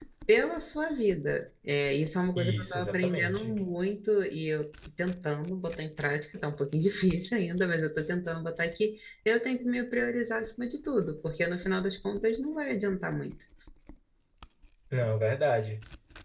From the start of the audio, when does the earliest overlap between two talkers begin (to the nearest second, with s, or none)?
2 s